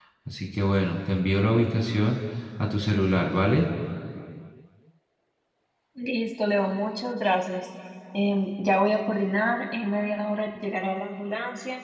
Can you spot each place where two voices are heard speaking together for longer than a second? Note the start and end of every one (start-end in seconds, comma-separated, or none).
none